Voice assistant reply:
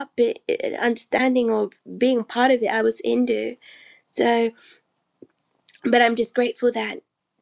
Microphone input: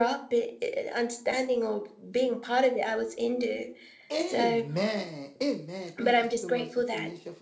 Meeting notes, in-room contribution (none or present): present